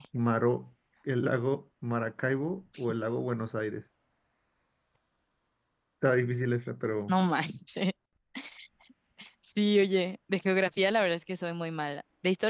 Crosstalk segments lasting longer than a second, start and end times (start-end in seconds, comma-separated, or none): none